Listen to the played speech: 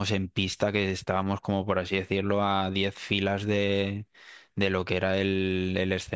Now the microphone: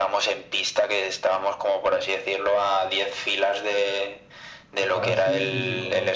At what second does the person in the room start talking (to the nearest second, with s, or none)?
5 s